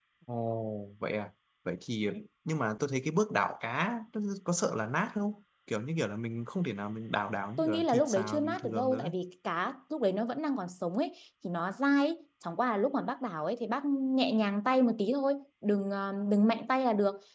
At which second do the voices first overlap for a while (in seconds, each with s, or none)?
7.6 s